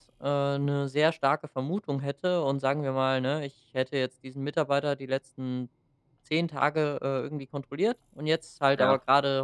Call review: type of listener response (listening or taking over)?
listening